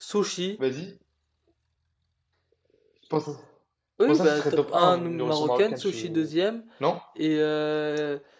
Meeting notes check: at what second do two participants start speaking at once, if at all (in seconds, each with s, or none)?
4.0 s